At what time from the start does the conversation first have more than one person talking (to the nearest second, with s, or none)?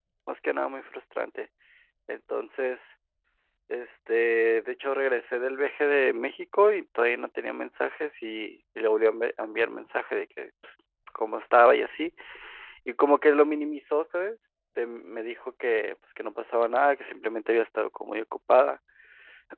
none